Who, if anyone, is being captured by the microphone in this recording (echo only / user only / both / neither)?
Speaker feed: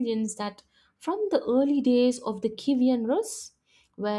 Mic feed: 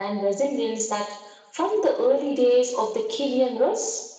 echo only